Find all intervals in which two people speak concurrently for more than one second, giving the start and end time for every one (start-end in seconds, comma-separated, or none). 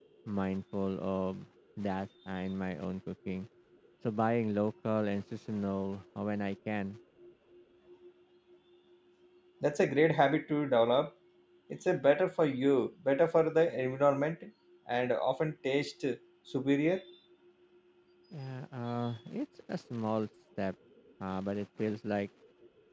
none